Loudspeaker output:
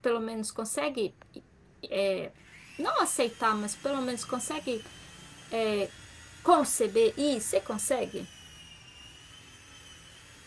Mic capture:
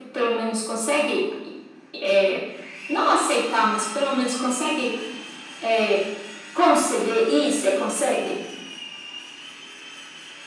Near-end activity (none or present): none